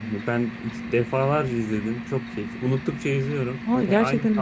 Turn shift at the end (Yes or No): Yes